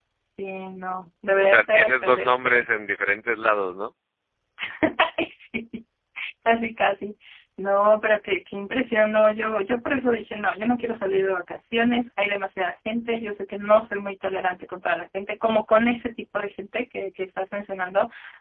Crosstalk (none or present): present